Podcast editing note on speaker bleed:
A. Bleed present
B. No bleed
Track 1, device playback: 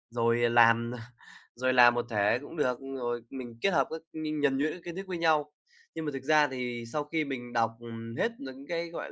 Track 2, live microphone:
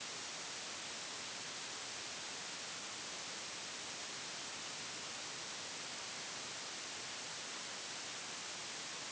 B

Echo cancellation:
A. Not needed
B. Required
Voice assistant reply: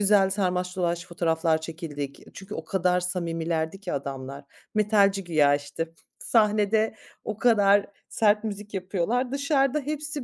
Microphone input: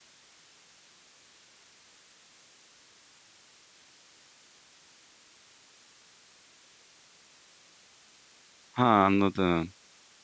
A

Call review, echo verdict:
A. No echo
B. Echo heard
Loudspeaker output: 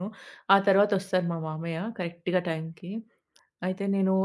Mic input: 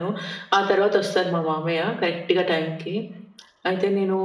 B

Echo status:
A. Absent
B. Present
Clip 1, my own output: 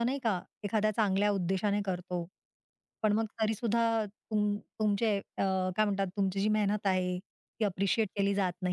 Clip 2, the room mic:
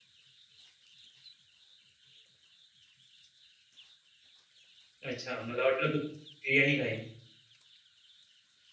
A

